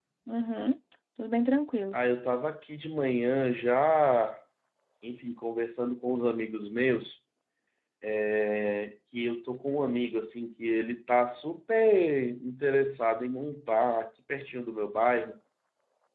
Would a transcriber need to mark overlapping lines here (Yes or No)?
No